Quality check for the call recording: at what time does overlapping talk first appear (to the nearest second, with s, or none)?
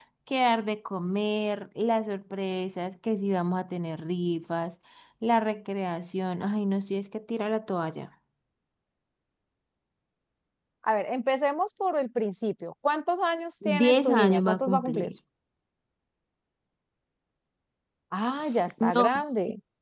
14 s